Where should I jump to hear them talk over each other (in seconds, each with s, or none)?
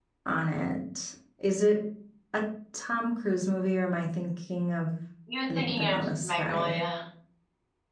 5.5 s